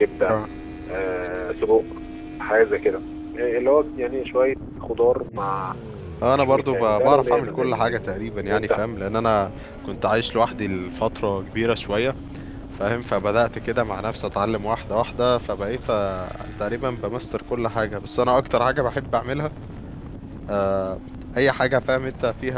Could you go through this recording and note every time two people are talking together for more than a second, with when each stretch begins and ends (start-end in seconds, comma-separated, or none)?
6.4-8.1